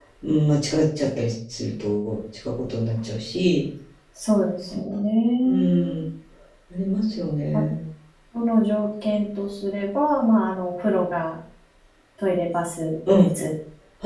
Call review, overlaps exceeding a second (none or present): none